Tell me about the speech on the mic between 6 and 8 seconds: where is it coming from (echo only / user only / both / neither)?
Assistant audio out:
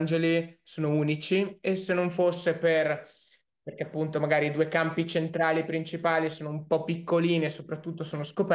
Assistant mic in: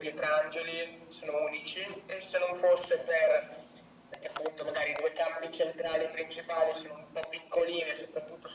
echo only